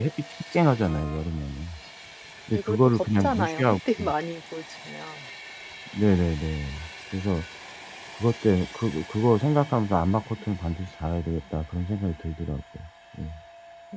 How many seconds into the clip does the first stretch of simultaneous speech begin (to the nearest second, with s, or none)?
3 s